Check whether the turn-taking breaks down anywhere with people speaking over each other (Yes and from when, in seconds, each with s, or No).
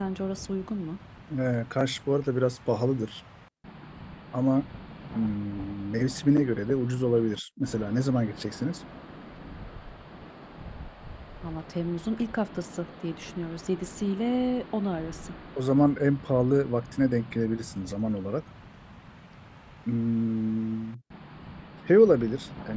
No